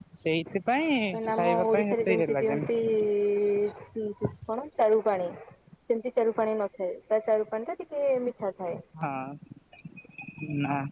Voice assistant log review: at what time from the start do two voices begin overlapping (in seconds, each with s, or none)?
1.4 s